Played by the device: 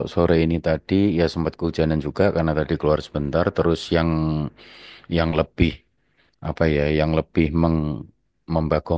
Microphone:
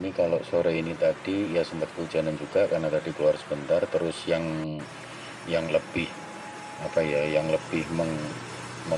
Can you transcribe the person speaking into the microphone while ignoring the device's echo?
none

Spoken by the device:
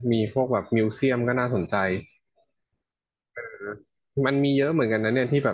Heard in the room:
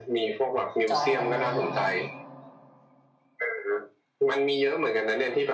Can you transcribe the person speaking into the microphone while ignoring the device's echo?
จองกันเลยเนาะ

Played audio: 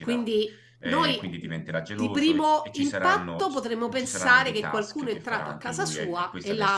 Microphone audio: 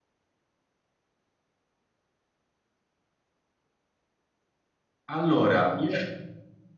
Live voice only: Allora, io-

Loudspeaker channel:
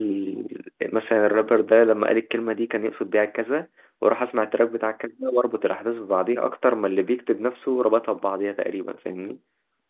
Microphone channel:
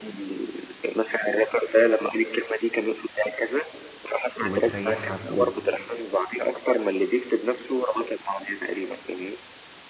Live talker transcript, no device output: وبتريحك

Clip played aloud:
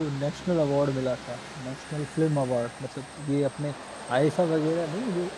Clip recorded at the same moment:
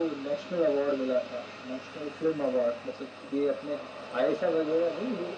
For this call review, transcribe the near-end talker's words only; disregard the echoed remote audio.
none

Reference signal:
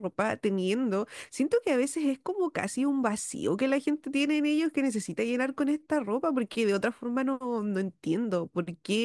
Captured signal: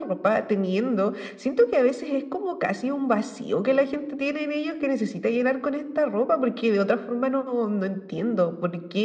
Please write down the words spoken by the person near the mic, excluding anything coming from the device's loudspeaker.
none

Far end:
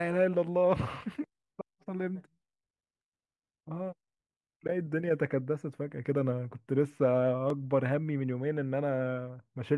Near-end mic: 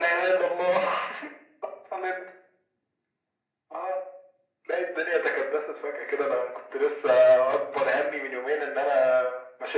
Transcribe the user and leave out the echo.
none

